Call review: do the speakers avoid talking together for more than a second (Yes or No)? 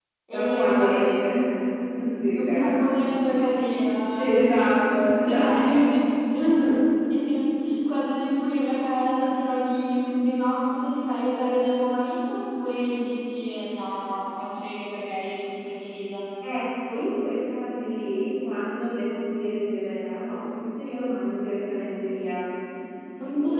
No